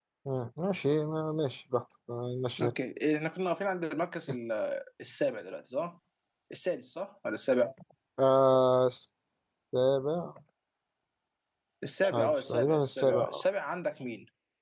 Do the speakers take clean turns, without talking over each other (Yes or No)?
No